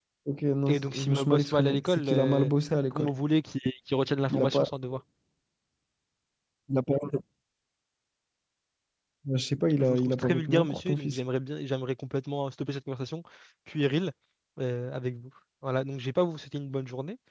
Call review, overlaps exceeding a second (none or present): present